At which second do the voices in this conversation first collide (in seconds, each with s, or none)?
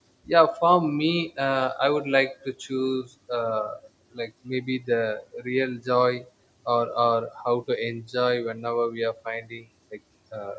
none